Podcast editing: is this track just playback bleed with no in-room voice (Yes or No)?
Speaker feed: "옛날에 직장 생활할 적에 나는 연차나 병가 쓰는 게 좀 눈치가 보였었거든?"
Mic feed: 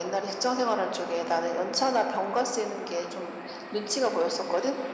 Yes